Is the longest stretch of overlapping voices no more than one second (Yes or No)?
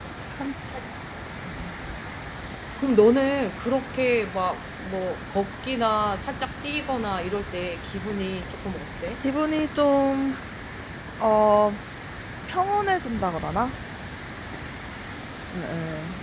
Yes